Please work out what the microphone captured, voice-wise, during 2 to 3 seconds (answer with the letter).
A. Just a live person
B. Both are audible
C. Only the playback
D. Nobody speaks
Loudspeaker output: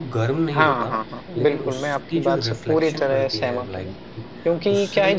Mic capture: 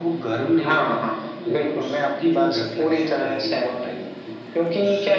C